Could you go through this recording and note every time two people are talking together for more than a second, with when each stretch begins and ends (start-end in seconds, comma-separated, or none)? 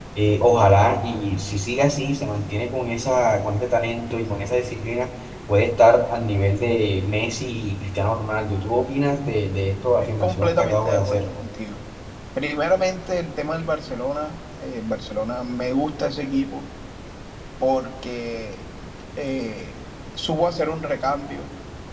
10.0-11.3